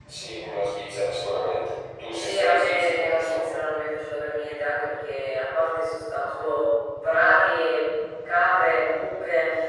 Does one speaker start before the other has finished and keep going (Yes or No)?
Yes